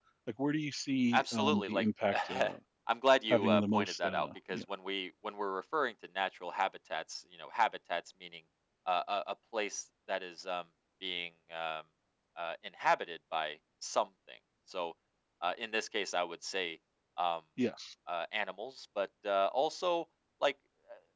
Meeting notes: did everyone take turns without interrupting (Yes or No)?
No